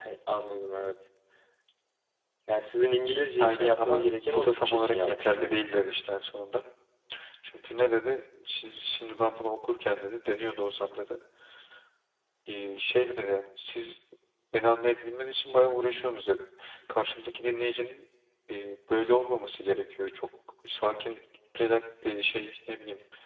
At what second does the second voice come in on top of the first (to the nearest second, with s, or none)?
3 s